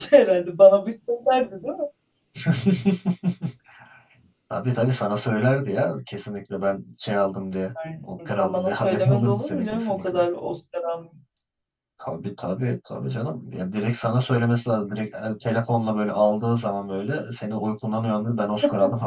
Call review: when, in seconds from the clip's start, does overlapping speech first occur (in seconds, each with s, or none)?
8.0 s